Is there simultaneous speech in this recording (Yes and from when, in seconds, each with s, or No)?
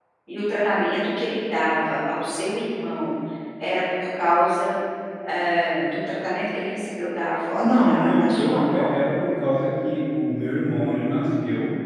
Yes, from 7.6 s